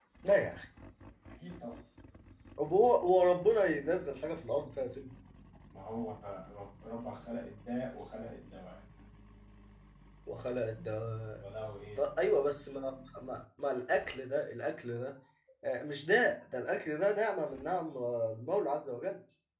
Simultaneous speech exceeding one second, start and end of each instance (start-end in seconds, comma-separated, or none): none